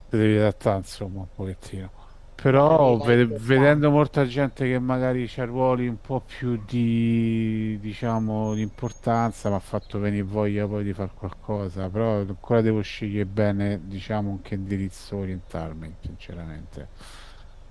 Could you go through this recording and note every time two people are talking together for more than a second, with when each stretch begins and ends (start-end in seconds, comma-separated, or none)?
2.5-3.8